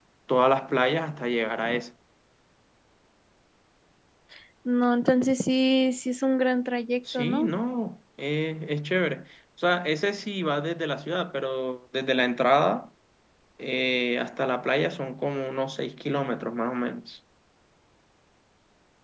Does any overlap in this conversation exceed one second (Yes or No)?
No